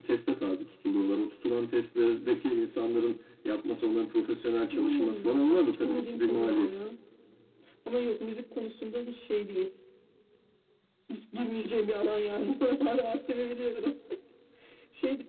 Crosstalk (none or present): present